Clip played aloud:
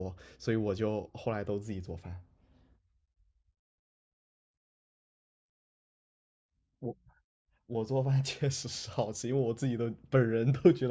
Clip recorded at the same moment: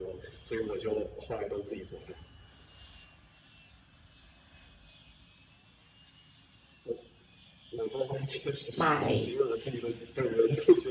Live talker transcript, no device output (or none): 买